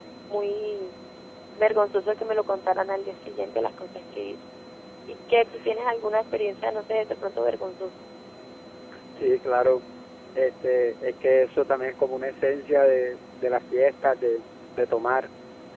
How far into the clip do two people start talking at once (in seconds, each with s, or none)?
none